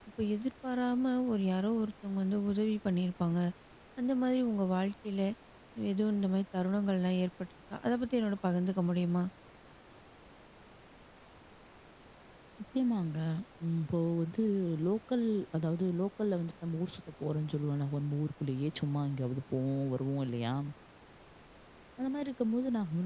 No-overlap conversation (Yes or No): Yes